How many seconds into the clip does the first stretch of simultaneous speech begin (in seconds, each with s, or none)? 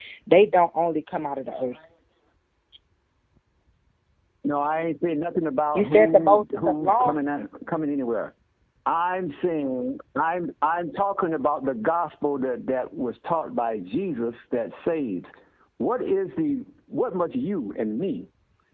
5.7 s